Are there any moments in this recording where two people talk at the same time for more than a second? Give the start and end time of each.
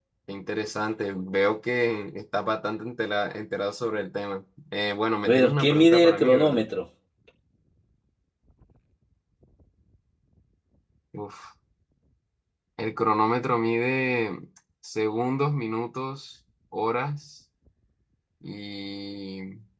5.2-6.6

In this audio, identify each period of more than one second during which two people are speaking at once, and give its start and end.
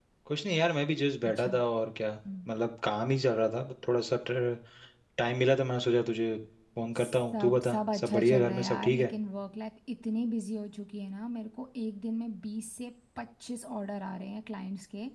7.0-9.1

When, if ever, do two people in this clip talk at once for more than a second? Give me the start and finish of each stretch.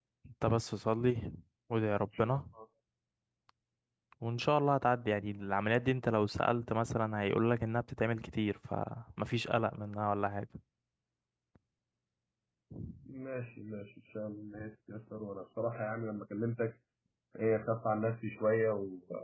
none

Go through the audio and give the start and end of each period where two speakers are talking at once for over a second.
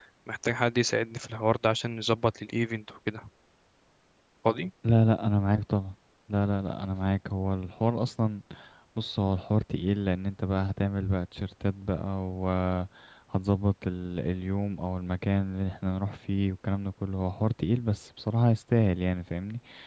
none

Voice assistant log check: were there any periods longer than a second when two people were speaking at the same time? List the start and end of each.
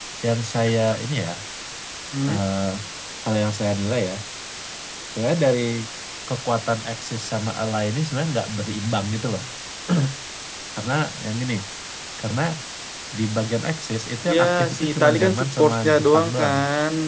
14.3-16.6

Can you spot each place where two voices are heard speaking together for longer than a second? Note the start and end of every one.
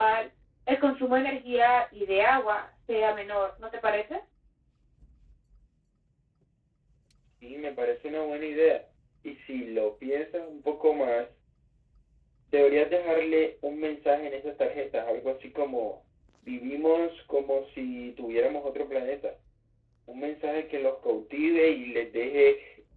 none

